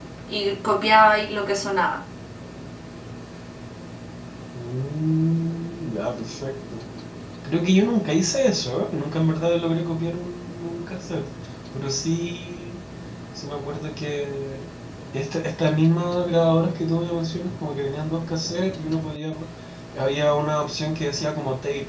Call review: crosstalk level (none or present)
none